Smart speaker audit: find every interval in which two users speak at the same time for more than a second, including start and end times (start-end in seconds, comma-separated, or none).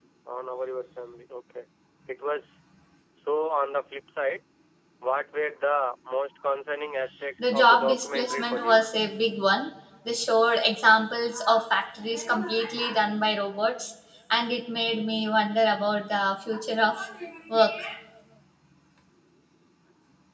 7.4-8.8